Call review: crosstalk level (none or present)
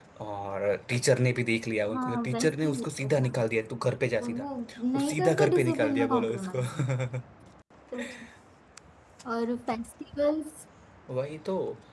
present